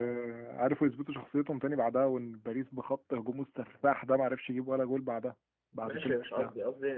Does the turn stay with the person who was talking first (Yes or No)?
No